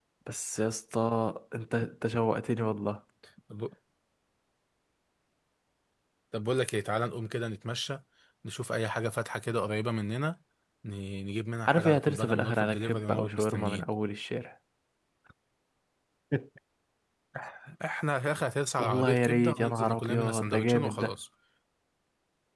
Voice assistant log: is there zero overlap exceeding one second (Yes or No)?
No